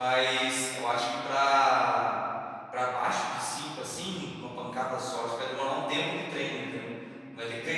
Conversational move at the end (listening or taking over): listening